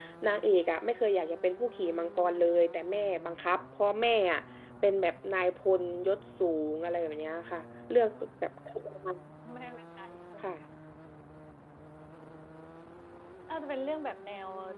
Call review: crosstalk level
none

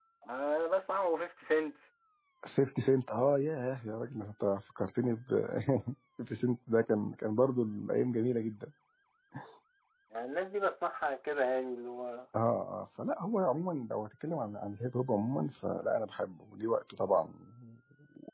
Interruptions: none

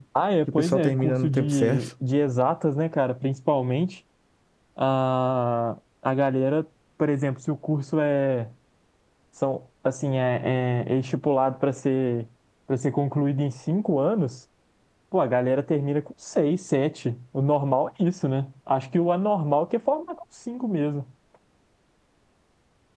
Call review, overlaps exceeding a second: present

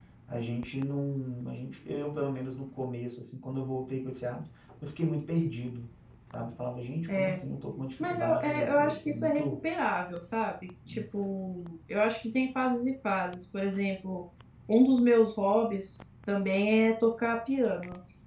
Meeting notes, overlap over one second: present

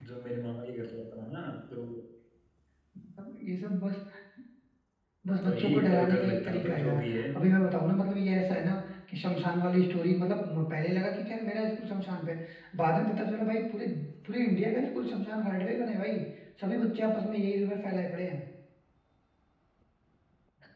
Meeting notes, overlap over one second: present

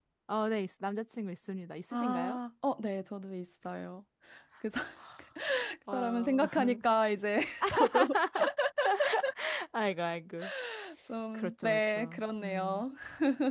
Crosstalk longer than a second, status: present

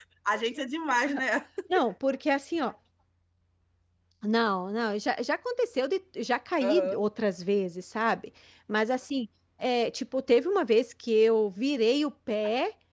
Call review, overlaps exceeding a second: none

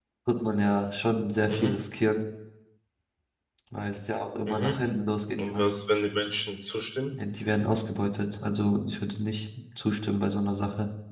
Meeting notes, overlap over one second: none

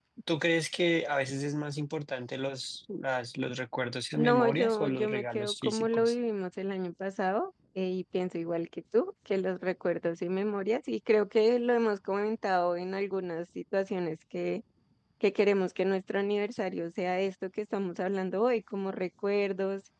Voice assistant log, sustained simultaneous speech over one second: present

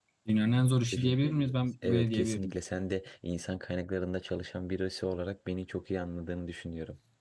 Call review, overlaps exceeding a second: present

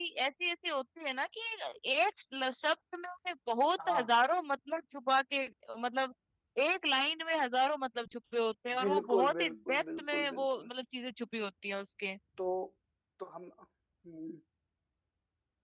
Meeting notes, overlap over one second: present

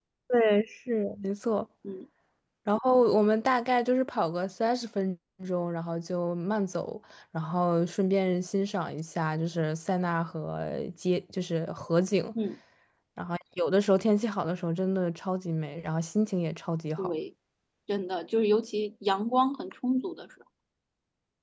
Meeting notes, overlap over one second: none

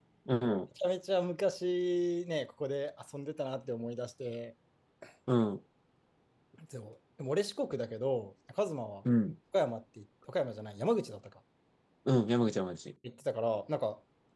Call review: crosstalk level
none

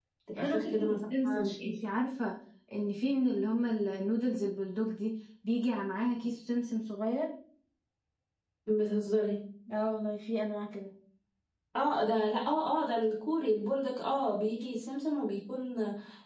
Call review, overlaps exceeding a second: present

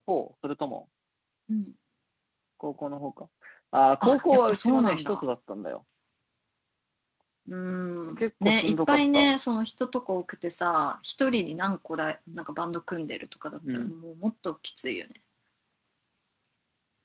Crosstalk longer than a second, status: present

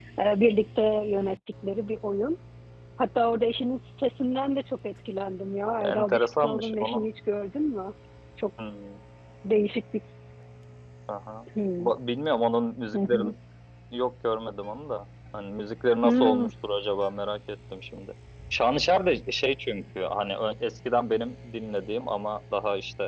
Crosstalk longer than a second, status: present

